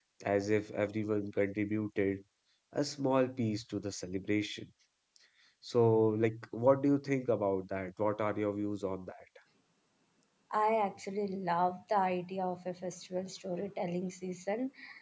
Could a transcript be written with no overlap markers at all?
Yes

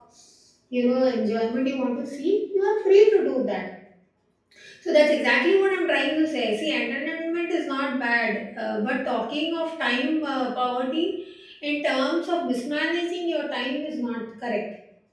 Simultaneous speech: No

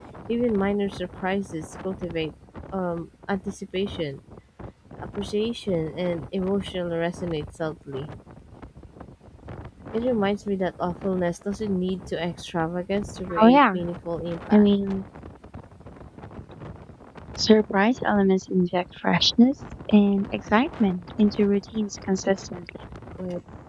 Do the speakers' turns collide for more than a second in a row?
No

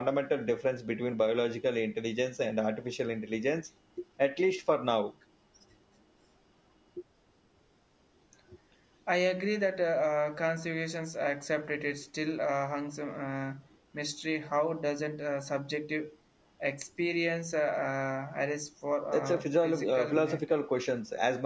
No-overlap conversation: No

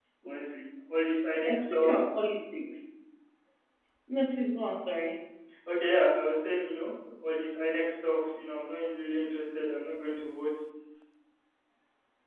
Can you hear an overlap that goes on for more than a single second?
No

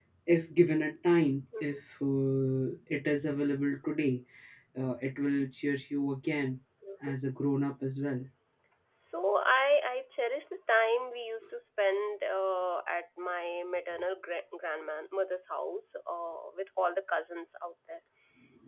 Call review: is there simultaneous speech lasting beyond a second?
No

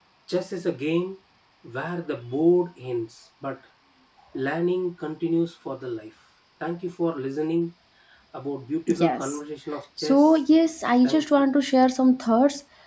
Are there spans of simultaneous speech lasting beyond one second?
No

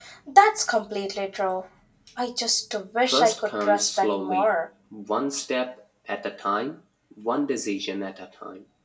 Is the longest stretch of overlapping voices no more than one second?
No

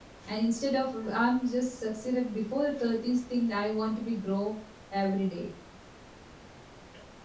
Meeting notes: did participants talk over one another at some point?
No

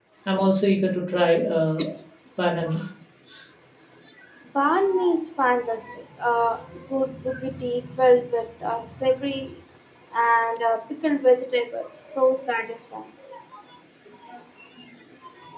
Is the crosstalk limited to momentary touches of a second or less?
Yes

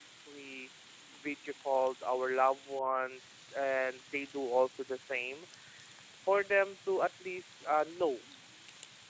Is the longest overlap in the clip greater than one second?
No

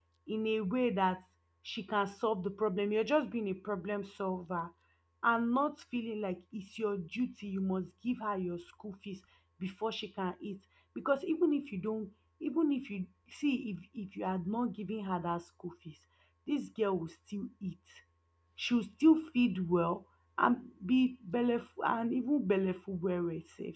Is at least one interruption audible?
No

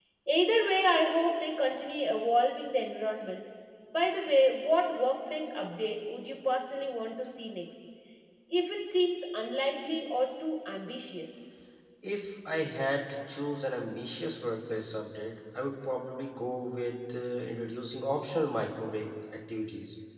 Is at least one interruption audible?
No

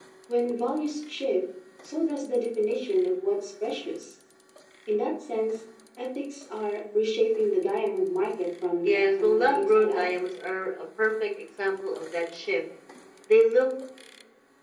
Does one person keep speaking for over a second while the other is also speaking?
Yes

